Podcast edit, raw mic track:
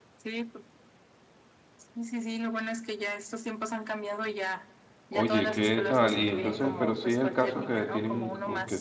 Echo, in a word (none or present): present